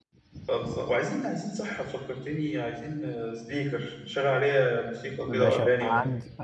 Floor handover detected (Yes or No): Yes